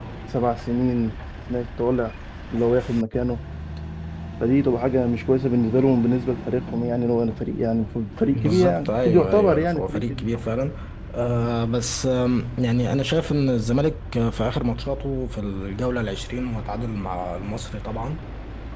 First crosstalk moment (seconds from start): 8.3 s

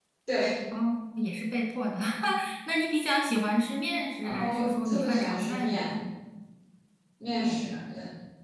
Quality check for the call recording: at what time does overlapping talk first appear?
4.2 s

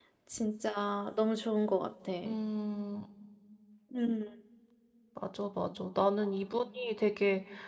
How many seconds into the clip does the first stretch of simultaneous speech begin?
none

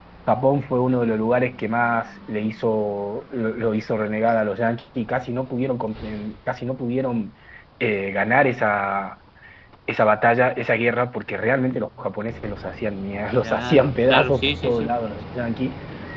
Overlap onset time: 13.4 s

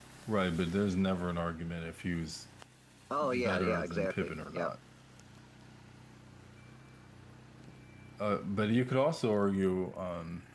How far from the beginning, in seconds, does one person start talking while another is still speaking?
3.2 s

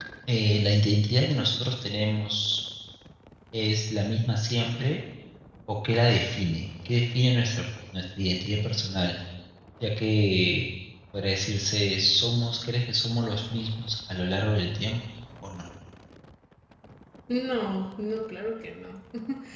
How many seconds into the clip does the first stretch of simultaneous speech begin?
none

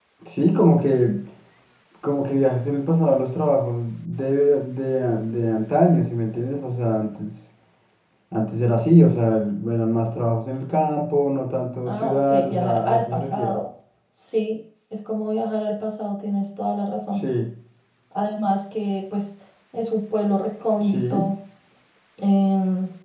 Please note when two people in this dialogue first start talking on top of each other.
11.8 s

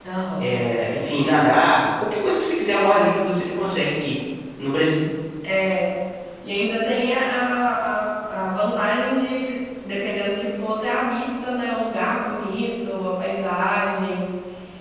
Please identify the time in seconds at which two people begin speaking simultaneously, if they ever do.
none

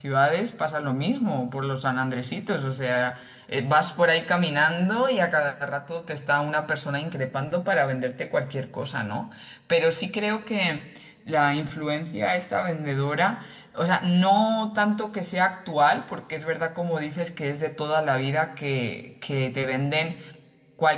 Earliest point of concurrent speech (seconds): none

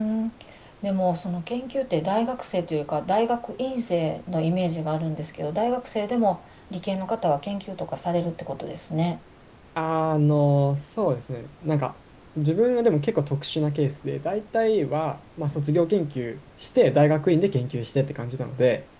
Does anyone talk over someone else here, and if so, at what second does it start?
none

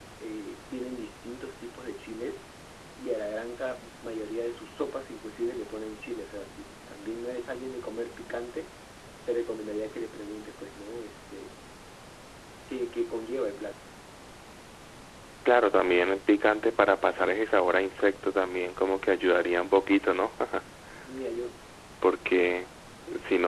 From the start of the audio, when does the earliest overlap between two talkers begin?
none

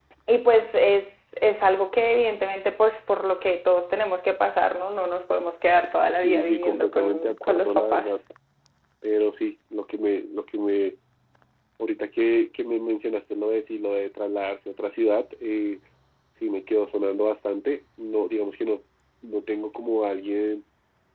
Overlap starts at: 6.2 s

